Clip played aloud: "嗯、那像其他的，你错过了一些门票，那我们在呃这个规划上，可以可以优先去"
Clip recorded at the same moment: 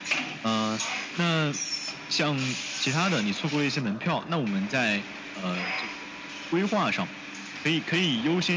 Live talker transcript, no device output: none

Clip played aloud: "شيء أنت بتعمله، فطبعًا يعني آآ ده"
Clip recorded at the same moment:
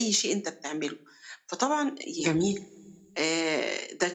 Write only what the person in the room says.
جميل،

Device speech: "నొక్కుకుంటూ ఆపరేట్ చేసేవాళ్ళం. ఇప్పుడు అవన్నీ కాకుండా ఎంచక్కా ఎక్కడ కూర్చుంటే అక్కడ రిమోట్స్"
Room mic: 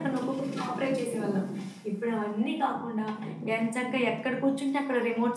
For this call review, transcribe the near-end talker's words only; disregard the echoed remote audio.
none

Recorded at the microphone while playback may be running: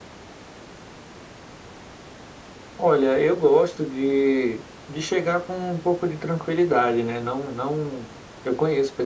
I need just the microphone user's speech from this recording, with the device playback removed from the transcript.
none

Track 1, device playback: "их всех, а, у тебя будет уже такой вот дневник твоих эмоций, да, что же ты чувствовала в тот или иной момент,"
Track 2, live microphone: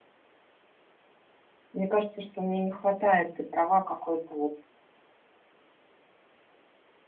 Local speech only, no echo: мне кажется, что мне не хватает, ты права, какой-то вот

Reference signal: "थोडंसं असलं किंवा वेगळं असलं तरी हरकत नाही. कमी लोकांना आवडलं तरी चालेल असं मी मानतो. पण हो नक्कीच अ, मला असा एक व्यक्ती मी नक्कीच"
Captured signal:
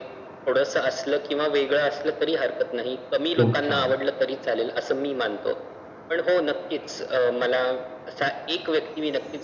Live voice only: खूप छान.

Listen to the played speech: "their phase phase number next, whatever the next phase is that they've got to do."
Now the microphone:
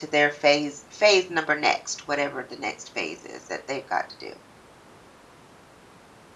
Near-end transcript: none

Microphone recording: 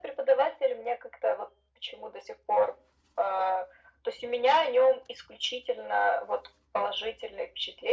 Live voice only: none

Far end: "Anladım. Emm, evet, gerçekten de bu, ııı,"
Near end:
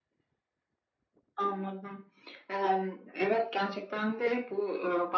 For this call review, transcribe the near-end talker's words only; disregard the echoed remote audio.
none

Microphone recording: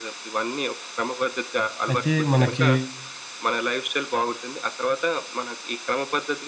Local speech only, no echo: అయితే మనకి

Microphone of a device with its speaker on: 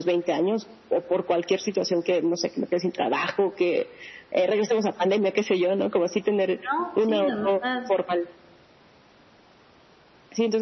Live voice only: No, sí, la verdad.

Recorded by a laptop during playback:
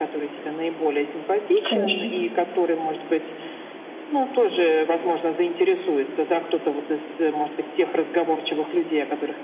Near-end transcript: конечно.

